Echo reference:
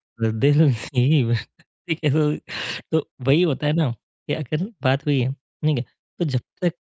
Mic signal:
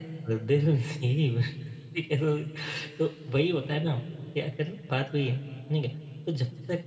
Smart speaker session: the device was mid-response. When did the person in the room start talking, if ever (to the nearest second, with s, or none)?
none